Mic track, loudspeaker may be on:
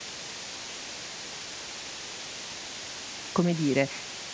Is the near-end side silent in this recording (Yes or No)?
No